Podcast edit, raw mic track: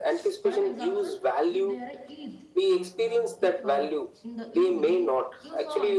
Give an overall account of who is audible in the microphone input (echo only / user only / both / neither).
both